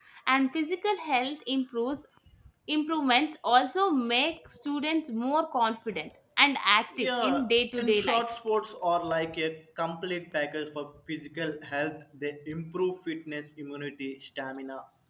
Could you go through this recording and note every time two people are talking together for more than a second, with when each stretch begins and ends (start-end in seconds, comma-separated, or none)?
7.0-8.3